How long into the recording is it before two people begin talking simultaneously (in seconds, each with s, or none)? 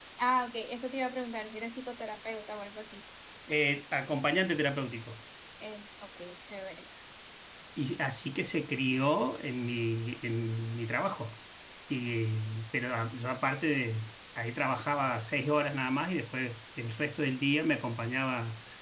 none